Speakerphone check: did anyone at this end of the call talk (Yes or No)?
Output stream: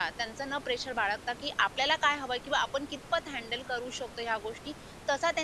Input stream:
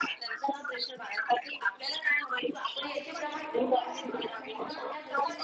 Yes